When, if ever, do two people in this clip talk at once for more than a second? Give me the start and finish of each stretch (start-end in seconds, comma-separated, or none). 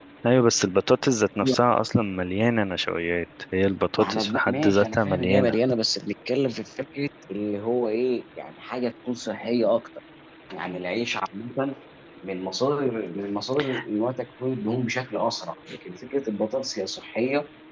4.0-5.6